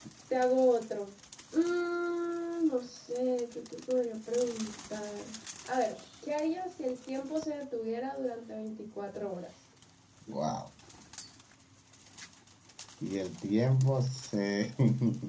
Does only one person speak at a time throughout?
Yes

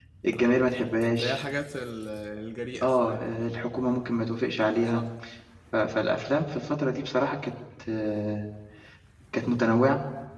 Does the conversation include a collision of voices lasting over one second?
No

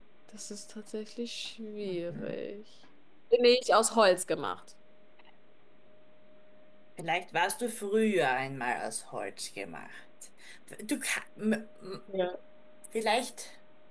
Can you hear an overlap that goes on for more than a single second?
No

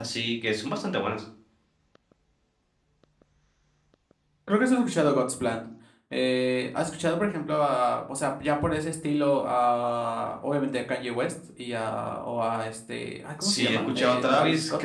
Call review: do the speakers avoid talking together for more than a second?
No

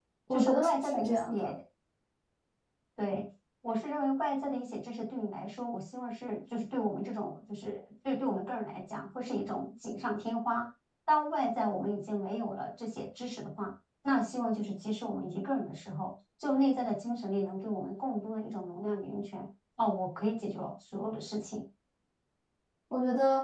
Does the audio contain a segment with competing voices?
Yes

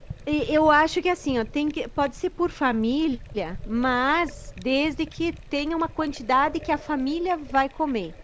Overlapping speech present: No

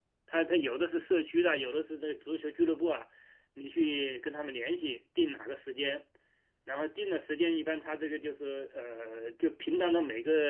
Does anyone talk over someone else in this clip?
No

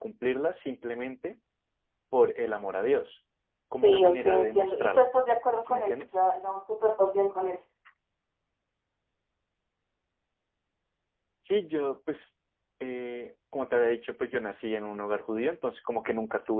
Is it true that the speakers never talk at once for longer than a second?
No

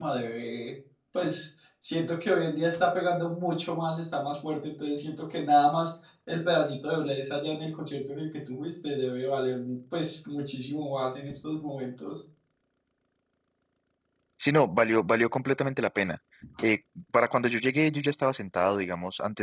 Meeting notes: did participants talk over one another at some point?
No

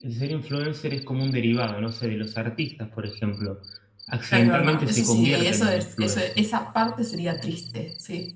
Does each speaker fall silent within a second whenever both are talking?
No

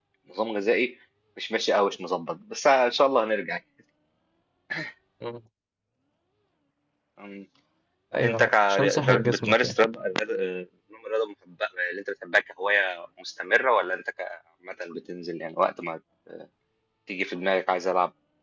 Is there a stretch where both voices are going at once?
Yes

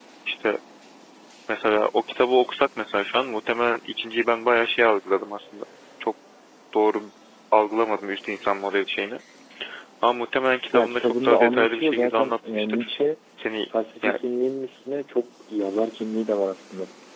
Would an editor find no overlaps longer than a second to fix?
No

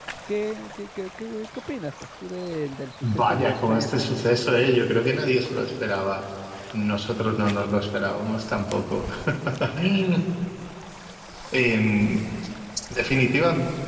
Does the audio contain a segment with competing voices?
Yes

